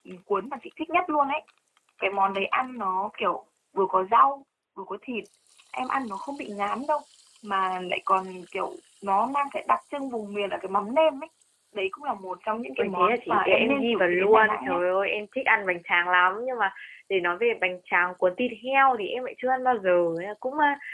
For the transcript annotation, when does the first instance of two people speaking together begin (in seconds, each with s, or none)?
12.8 s